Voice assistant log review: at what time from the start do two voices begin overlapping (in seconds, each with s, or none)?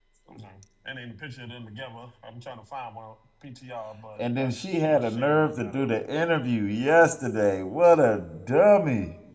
4.2 s